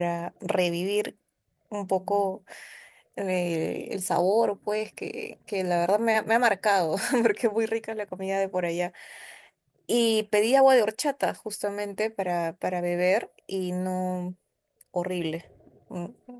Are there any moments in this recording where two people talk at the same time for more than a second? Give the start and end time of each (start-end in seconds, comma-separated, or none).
none